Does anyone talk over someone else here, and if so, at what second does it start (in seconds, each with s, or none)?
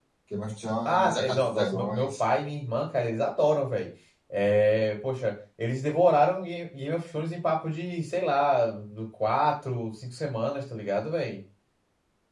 0.9 s